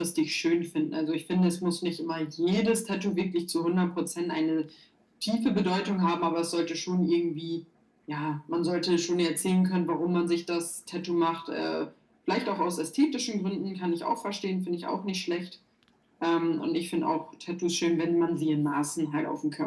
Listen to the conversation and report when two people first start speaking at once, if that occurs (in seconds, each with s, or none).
none